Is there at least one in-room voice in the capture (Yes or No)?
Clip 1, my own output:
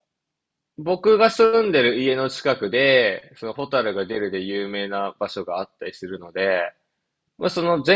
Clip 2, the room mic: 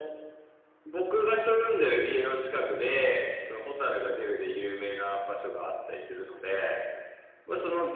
No